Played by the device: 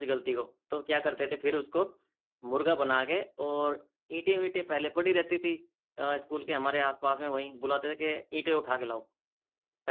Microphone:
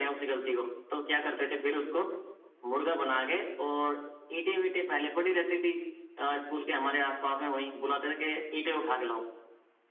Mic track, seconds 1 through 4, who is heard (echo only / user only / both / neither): echo only